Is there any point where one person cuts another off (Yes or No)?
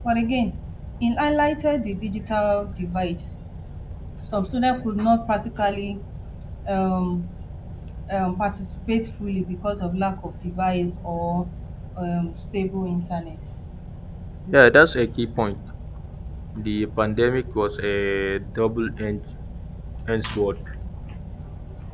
No